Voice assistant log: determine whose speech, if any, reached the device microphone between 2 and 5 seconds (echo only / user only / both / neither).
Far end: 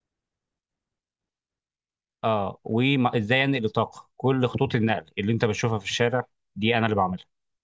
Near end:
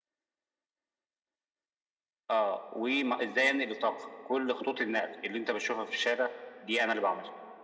echo only